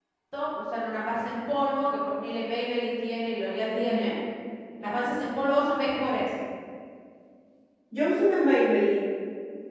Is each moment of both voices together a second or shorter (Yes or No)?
Yes